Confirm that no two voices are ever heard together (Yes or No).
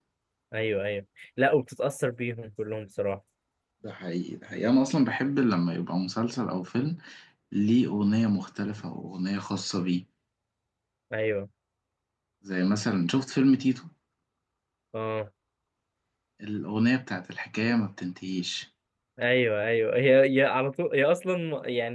Yes